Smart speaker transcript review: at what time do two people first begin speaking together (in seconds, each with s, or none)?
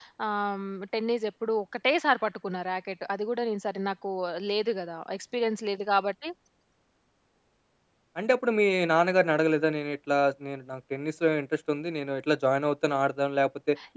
none